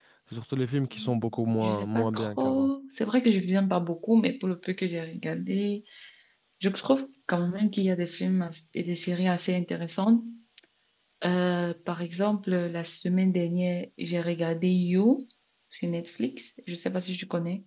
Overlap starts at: 0.9 s

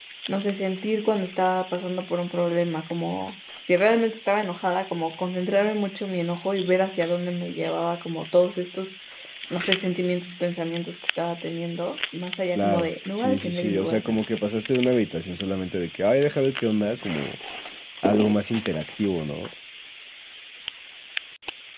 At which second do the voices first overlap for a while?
12.6 s

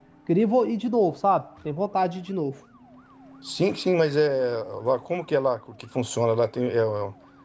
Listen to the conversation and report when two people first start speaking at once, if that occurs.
none

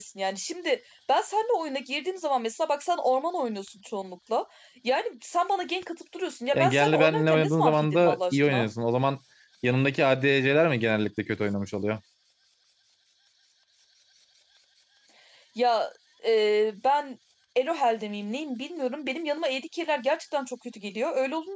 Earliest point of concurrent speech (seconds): 6.5 s

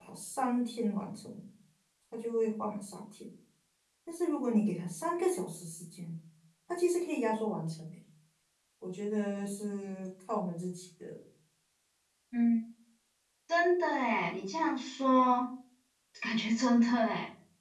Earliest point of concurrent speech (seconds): none

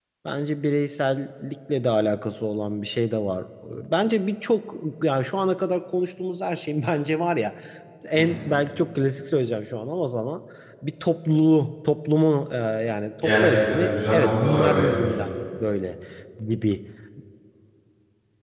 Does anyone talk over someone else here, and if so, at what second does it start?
13.2 s

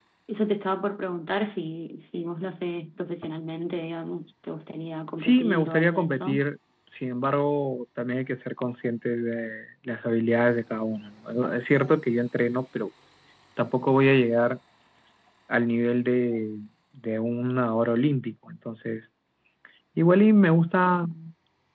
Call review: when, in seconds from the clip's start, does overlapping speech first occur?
5.2 s

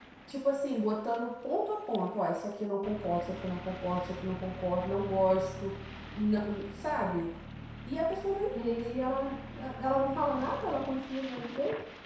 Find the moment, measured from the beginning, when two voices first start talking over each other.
none

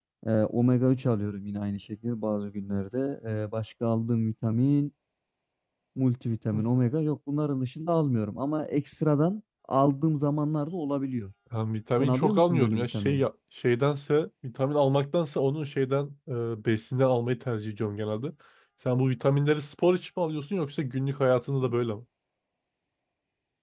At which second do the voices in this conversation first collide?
12.0 s

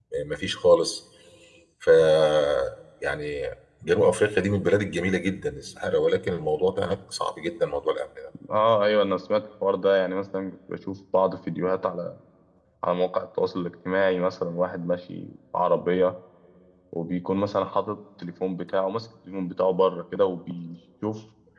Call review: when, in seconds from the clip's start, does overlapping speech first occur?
none

